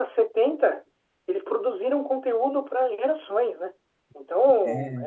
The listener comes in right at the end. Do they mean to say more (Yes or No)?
No